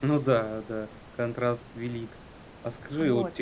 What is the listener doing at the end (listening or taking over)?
listening